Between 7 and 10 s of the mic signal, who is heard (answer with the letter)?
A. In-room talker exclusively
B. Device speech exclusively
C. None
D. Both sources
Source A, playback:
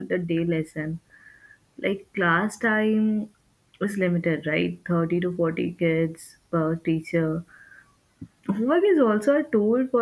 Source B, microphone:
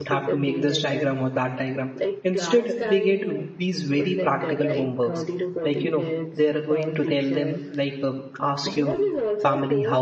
D